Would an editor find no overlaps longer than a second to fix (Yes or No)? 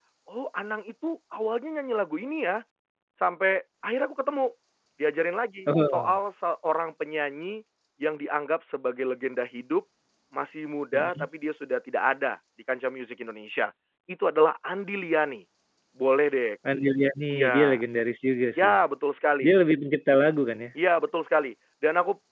Yes